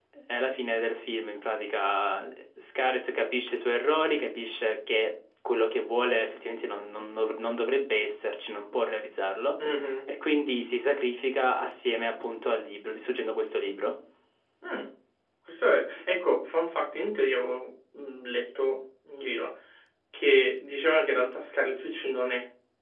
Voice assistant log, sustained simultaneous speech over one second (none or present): none